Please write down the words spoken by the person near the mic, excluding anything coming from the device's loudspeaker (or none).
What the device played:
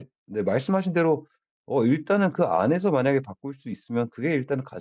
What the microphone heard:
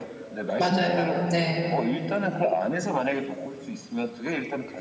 맞아요. 네.